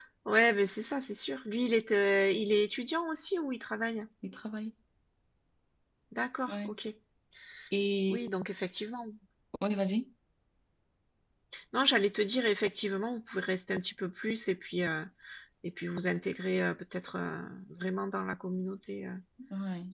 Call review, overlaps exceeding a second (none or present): none